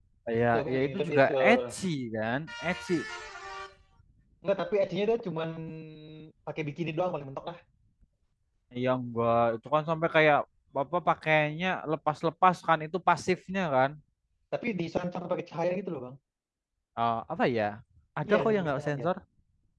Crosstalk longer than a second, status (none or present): present